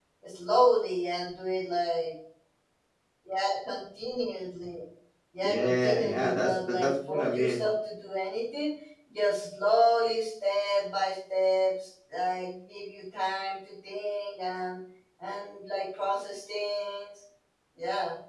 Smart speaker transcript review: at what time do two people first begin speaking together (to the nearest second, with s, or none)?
5 s